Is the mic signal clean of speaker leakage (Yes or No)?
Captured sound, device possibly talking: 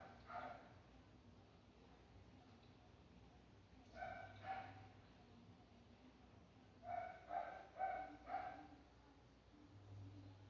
Yes